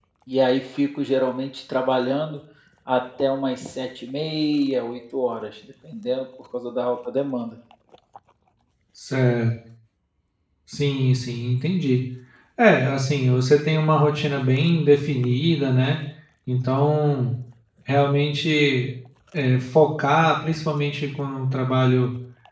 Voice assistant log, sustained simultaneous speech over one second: none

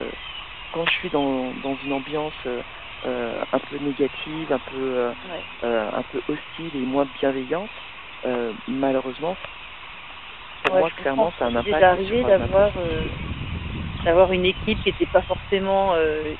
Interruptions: present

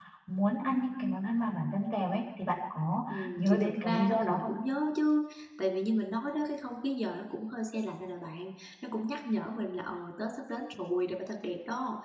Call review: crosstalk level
present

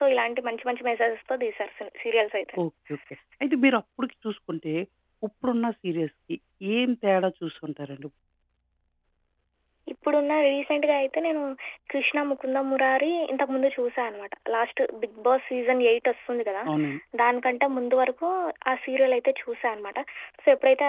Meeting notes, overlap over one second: none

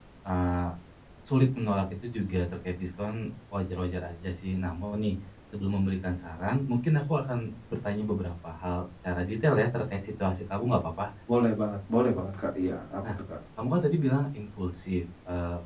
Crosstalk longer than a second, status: none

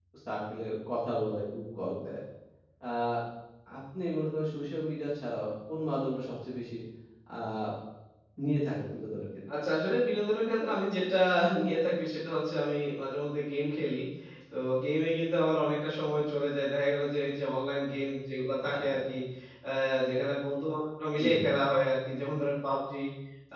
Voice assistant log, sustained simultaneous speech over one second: none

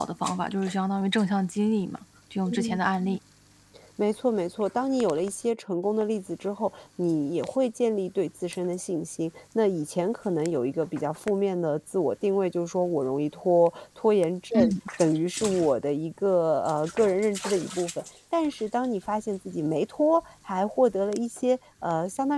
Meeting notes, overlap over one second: none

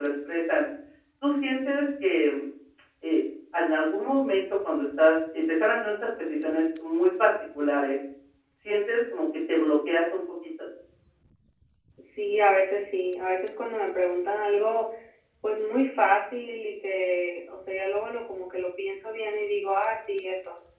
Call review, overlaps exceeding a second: none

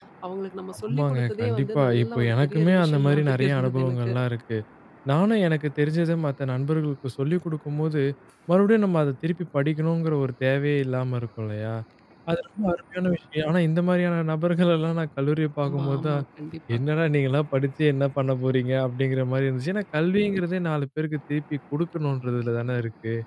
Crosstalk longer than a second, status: present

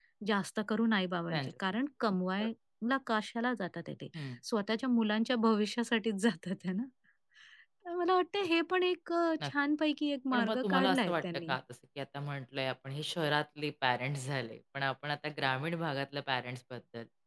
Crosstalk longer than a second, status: present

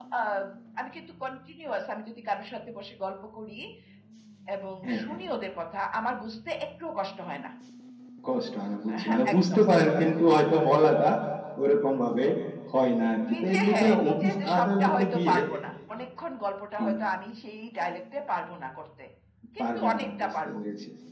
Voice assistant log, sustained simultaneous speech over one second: present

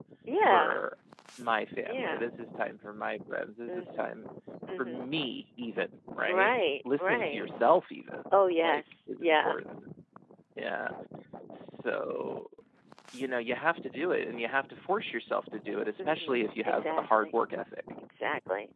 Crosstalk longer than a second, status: present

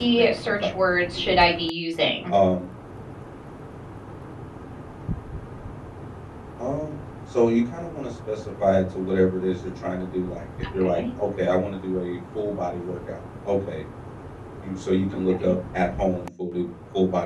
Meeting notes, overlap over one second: present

